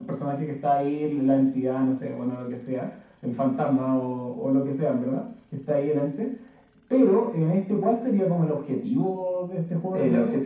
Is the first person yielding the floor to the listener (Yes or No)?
Yes